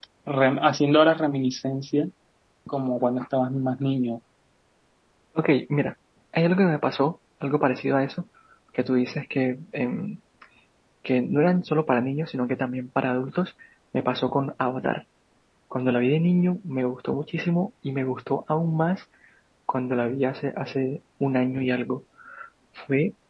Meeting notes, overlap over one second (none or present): none